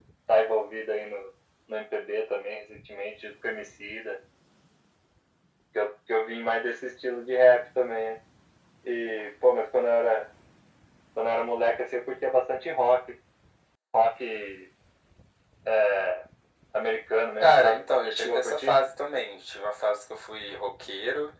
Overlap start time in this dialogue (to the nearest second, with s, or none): 17 s